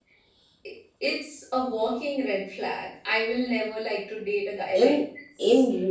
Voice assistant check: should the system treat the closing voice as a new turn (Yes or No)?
Yes